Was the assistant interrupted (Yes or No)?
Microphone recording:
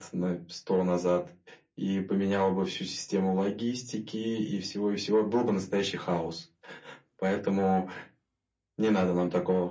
No